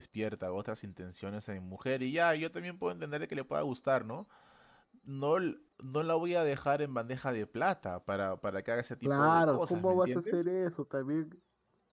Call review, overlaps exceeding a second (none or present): present